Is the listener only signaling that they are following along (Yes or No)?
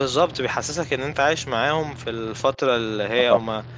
Yes